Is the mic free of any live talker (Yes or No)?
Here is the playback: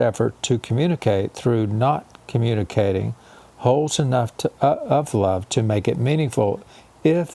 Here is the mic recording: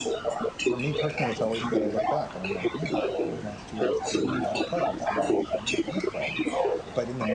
No